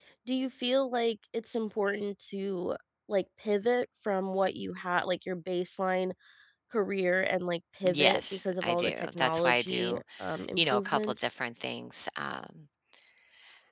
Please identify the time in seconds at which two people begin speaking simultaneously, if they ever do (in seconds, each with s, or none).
7.8 s